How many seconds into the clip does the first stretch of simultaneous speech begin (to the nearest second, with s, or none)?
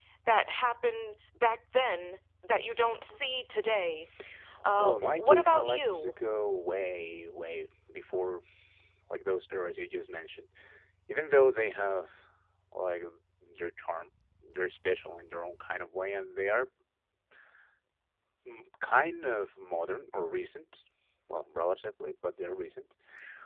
5 s